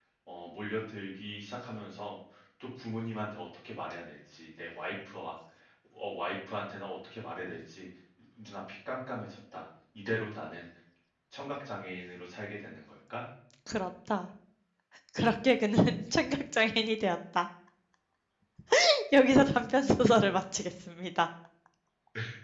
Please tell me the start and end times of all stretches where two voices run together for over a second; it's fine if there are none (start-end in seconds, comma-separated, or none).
none